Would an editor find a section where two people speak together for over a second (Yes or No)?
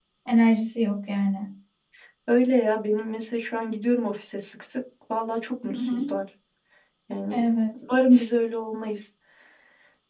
No